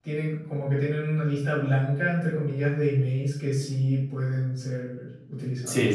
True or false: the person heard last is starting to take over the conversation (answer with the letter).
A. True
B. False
A